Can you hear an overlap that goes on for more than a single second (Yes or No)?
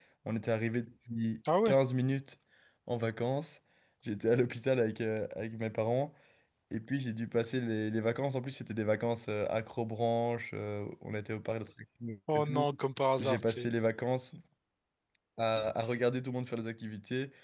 No